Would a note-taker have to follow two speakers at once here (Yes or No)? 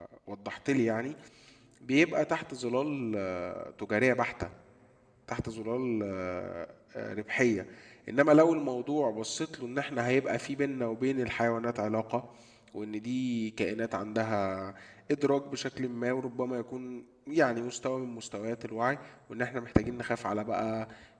No